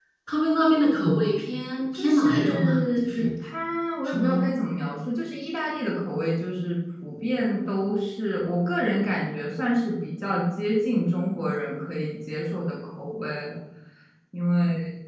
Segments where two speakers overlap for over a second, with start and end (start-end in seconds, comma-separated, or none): 2.0-3.3